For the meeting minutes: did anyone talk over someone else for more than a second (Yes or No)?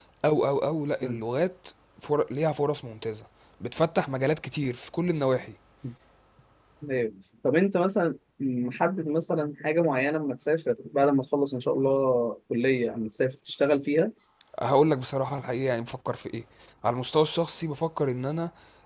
No